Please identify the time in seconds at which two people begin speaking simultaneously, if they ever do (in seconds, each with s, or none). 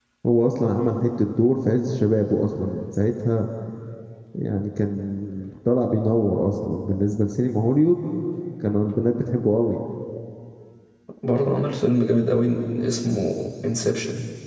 none